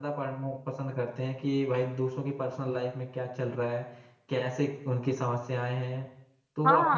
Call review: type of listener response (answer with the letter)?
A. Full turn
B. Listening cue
A